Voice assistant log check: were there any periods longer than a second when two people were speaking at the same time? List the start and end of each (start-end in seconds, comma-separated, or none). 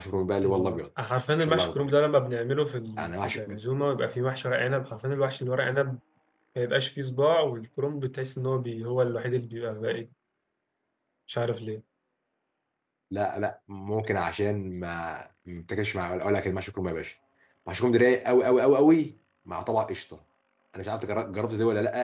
none